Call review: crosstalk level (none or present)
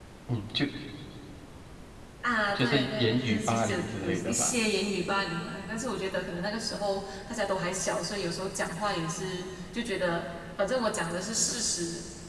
present